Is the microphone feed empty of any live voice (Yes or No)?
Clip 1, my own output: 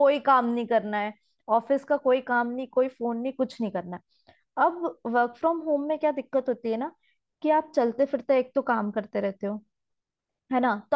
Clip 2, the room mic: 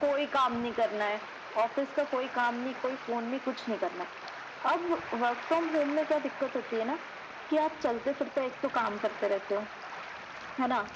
Yes